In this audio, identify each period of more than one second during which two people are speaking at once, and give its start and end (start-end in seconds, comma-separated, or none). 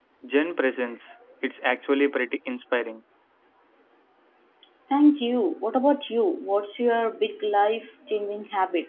none